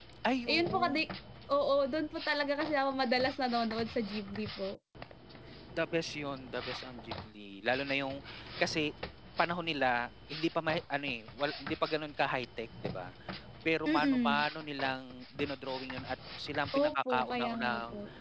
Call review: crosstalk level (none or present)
present